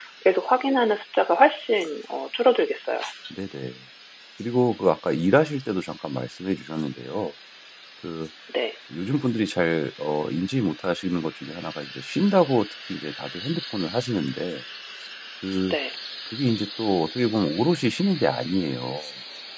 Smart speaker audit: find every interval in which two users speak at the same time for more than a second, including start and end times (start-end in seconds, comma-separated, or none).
none